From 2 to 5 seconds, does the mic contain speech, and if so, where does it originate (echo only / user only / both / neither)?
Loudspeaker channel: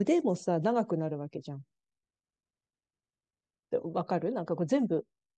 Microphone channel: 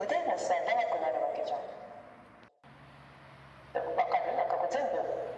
echo only